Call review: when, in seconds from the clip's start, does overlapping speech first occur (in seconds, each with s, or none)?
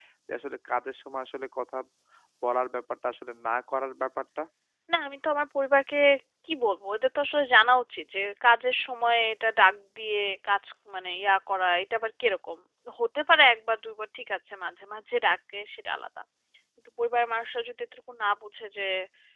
none